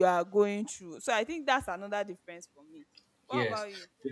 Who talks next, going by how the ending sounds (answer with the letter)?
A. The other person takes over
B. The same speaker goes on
A